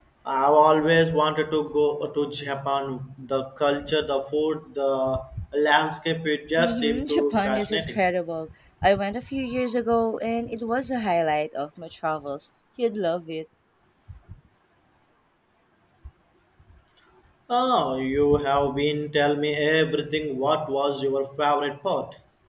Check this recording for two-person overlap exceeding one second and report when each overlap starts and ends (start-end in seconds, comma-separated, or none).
6.6-8.0